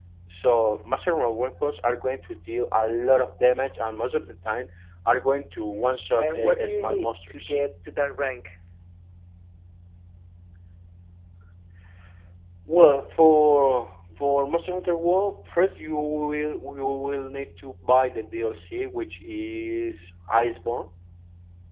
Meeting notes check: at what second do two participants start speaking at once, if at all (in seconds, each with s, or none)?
6.2 s